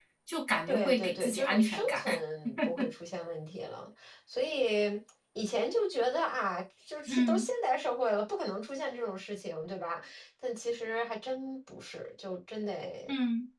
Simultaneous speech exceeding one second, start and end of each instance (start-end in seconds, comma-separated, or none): 0.7-2.0